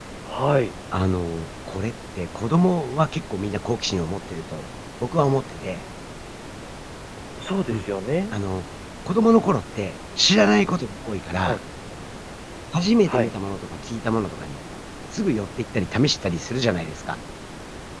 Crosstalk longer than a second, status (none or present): none